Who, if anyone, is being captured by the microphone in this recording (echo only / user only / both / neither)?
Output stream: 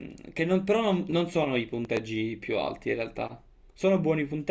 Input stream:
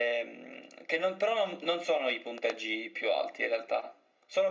echo only